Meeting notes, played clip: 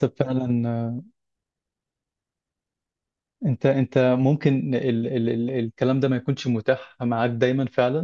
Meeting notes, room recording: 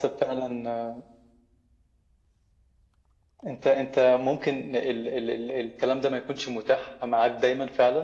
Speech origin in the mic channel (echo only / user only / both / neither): echo only